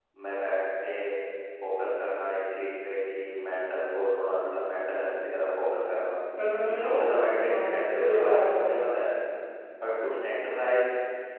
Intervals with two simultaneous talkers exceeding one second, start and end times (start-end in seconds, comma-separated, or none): 7.5-9.1